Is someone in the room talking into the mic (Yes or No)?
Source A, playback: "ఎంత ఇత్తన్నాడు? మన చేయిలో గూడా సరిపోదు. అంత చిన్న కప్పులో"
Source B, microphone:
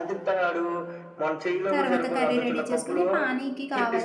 Yes